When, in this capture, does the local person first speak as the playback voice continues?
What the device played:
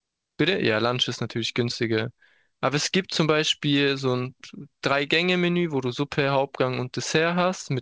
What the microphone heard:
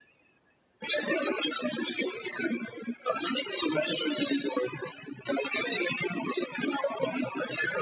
none

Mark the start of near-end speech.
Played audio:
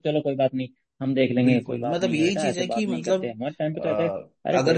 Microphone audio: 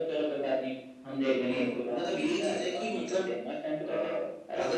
none

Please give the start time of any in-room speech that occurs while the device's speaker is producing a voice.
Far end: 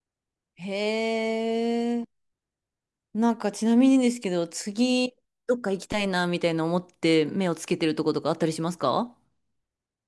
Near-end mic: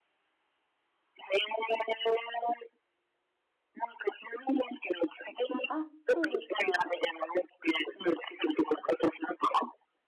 5.7 s

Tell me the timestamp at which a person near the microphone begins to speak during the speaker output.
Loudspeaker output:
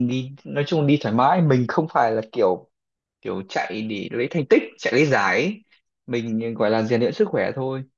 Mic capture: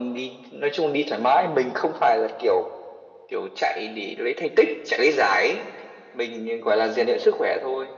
none

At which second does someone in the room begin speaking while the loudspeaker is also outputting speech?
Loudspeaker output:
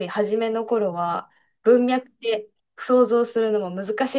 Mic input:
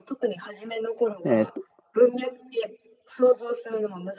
1.2 s

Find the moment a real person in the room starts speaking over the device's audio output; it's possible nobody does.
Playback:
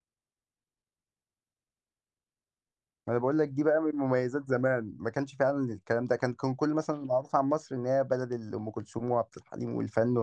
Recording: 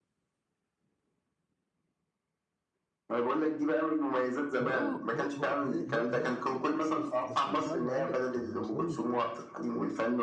4.6 s

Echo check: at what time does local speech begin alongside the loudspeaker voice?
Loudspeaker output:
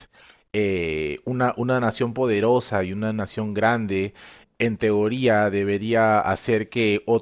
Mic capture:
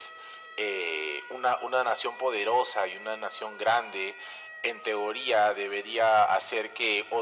none

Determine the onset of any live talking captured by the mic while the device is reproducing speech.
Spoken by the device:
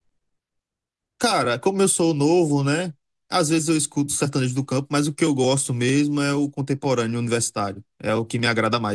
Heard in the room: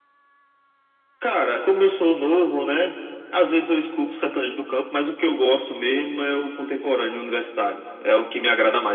none

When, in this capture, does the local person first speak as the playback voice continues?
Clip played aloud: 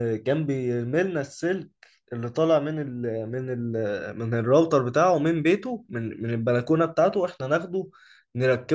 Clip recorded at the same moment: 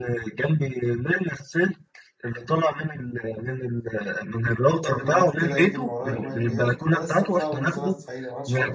4.8 s

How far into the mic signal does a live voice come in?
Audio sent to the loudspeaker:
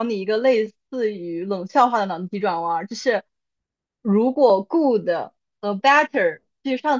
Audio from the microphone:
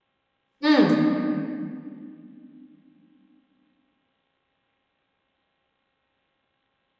0.6 s

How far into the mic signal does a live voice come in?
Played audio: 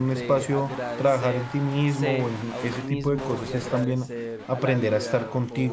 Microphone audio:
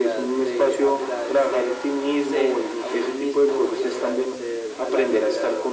none

